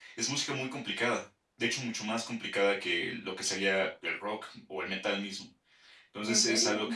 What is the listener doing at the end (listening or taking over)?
listening